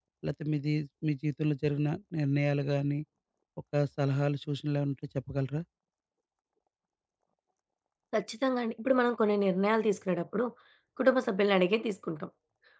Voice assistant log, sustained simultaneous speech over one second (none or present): none